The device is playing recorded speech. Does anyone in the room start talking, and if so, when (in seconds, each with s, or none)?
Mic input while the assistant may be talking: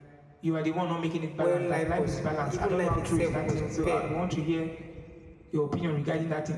1.4 s